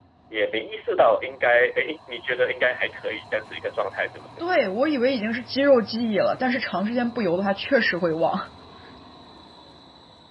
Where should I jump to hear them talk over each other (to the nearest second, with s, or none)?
none